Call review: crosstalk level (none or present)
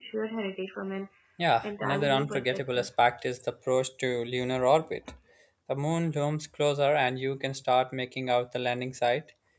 present